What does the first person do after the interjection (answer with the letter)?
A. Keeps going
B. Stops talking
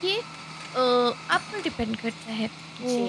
A